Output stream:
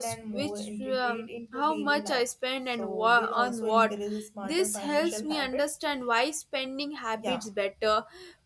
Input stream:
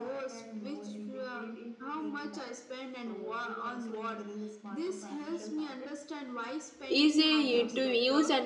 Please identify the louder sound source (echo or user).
user